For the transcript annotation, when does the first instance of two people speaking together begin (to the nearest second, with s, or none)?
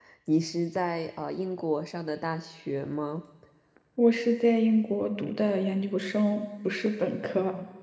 none